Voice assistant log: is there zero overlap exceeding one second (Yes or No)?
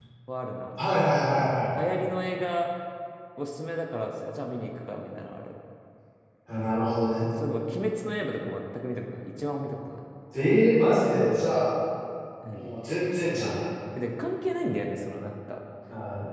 Yes